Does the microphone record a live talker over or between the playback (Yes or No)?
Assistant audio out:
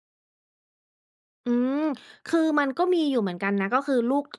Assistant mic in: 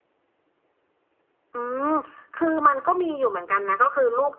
No